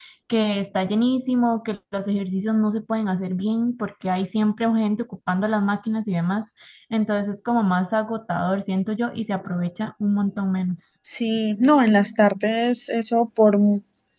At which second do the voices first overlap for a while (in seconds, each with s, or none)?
none